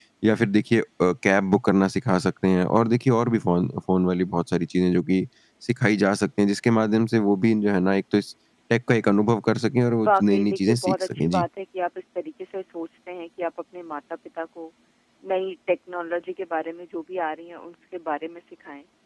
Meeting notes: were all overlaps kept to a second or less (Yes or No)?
No